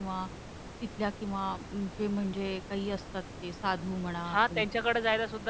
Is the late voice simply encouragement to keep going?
No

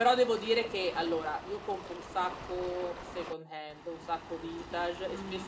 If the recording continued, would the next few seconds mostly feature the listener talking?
No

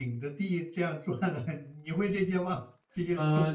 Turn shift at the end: Yes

